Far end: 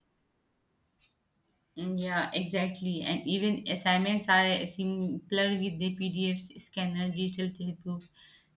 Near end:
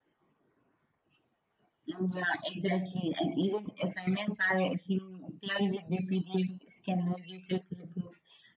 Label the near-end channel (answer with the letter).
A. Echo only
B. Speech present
A